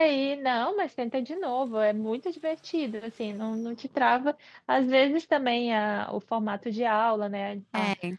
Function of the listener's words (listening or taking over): listening